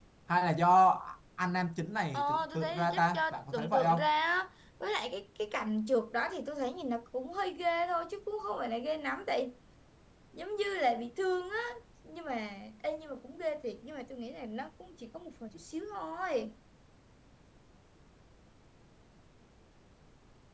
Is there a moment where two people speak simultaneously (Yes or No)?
Yes